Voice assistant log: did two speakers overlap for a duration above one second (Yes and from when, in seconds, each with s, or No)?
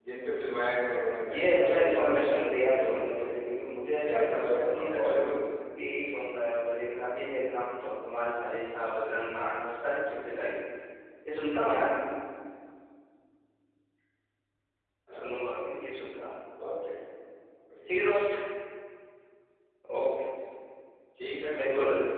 Yes, from 1.3 s